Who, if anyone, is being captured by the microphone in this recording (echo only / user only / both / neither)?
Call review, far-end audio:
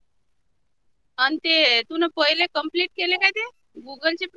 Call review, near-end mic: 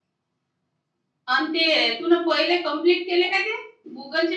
echo only